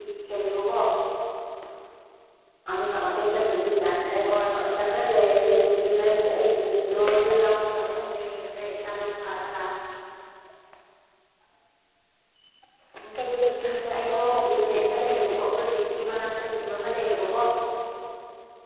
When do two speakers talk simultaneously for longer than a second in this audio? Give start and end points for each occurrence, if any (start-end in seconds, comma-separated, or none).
14.0-15.3